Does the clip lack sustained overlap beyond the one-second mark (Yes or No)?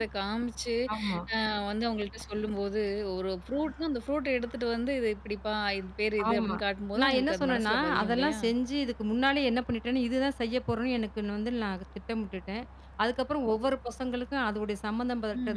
No